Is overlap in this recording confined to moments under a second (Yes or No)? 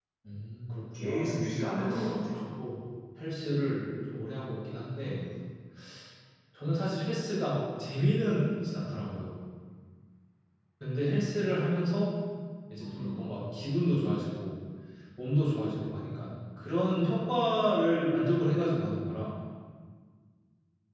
Yes